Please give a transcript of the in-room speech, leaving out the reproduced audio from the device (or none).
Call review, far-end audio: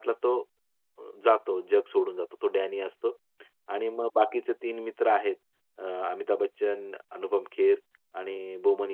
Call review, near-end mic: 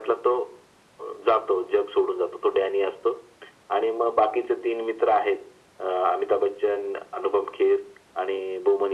none